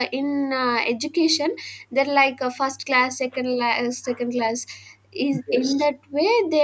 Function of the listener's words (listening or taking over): listening